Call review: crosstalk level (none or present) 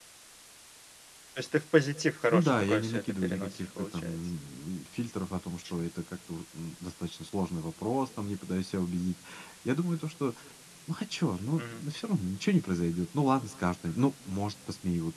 present